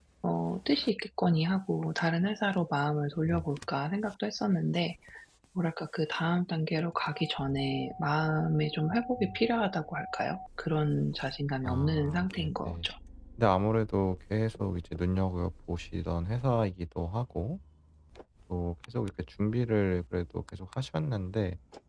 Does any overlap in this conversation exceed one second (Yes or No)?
Yes